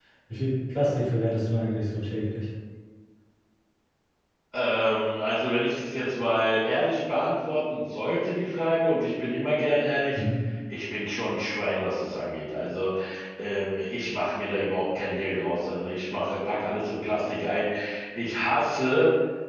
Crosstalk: none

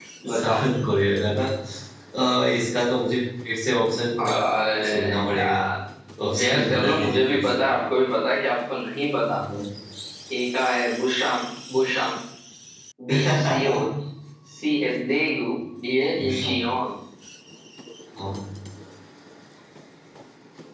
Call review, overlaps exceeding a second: present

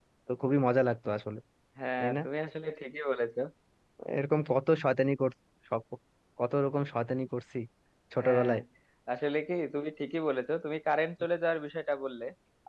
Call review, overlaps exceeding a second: none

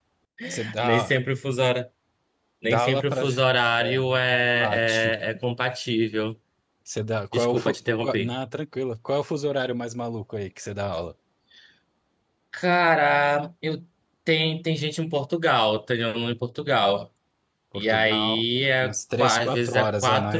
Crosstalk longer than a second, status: present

